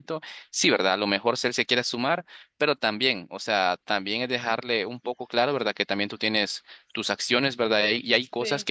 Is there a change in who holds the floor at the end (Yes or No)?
No